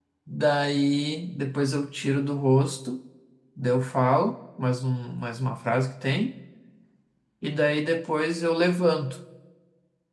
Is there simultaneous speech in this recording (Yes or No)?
No